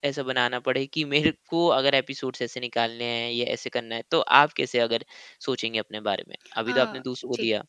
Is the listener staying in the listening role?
No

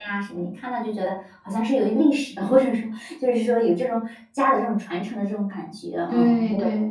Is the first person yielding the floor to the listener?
Yes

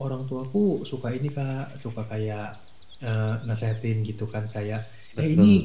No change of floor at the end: Yes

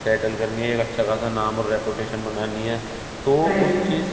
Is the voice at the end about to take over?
No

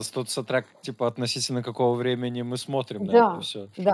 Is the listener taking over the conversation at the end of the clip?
Yes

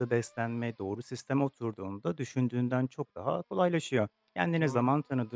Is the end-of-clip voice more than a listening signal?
No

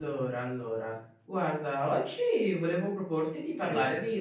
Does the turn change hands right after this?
No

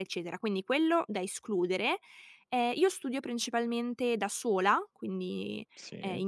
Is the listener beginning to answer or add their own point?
No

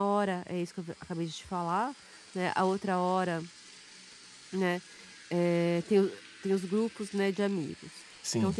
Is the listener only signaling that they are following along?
Yes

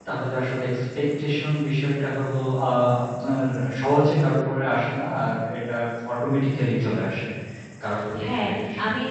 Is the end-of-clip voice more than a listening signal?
Yes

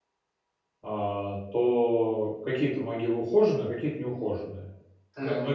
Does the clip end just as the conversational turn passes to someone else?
No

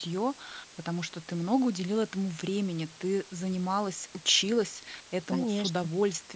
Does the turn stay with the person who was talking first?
Yes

